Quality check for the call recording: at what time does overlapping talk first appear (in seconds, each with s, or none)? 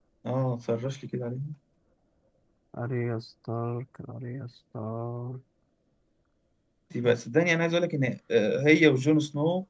none